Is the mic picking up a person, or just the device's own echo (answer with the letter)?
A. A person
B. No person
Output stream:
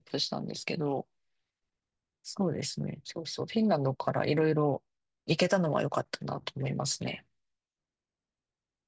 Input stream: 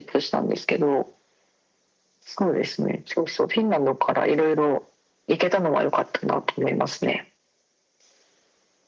B